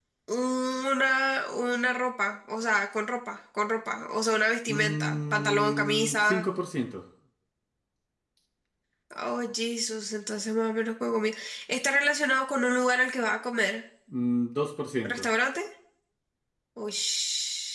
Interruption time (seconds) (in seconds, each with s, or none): 4.7 s